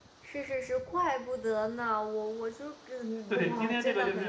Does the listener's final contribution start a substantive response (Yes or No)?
Yes